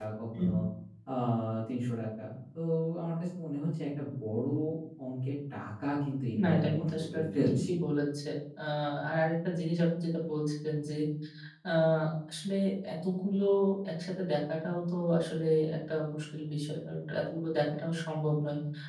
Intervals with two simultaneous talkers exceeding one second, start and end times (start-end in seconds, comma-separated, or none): 6.4-7.7